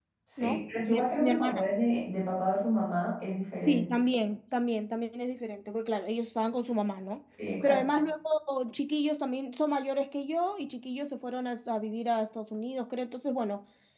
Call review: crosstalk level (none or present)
present